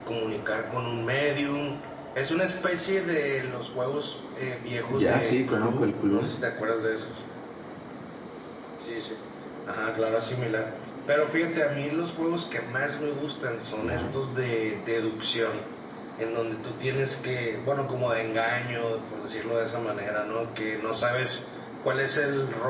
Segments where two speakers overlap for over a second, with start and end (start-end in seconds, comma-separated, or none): 4.9-6.3